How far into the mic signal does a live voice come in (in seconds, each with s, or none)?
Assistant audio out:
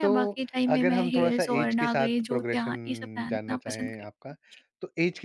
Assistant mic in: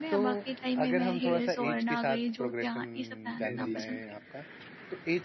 3.4 s